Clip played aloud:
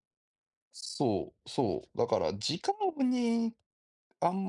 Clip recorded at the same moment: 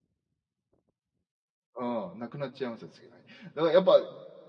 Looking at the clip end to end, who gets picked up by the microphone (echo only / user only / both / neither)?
user only